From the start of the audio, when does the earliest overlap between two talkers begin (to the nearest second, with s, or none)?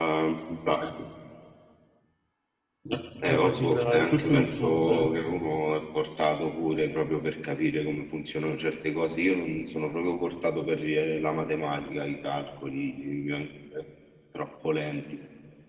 3 s